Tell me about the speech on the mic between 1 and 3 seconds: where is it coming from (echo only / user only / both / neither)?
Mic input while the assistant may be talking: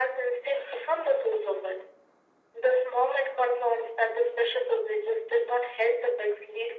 echo only